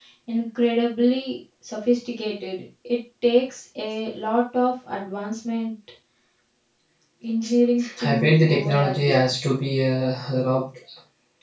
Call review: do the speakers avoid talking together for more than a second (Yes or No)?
No